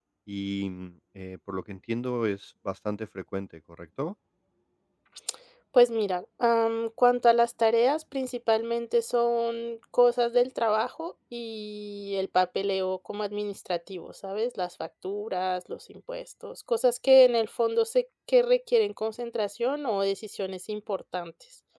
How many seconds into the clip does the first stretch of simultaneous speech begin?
none

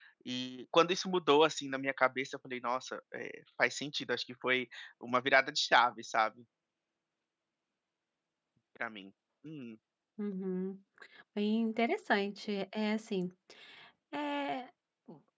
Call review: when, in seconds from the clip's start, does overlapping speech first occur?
none

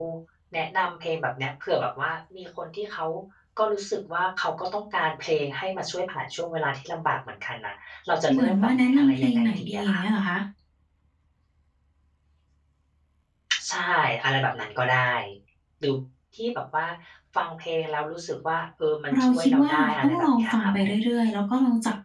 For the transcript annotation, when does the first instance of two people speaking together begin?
8.3 s

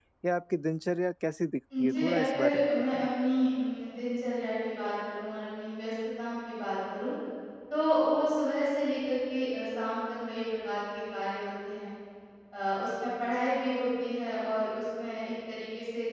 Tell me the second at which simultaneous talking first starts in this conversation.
1.7 s

